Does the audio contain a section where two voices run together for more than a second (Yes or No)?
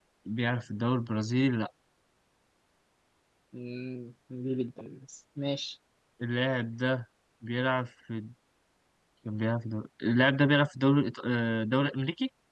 No